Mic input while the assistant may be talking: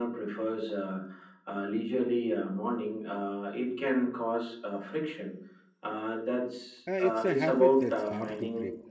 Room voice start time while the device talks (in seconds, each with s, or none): 6.9 s